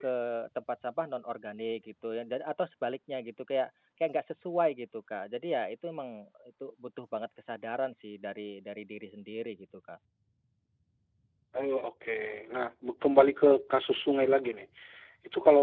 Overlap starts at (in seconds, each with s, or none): none